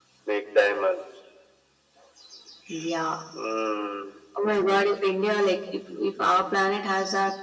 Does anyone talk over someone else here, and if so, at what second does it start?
none

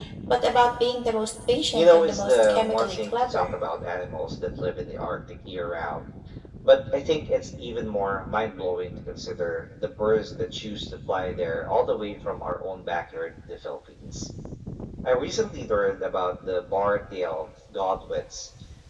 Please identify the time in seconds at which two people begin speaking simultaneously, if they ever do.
1.7 s

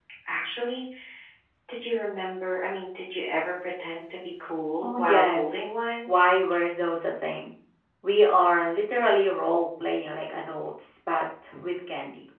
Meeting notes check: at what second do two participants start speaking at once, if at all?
4.8 s

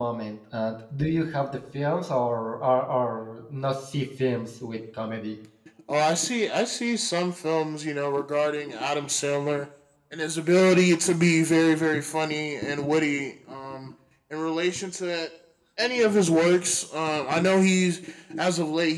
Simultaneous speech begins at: none

